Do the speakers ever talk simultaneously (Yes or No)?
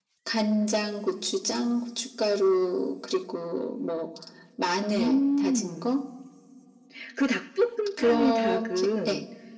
Yes